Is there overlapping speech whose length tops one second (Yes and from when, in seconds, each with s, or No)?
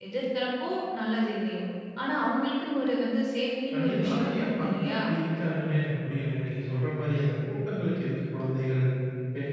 Yes, from 3.7 s